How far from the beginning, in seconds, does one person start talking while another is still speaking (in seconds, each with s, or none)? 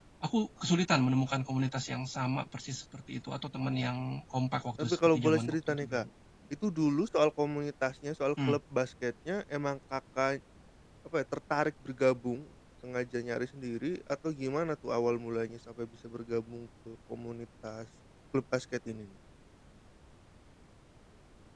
4.8 s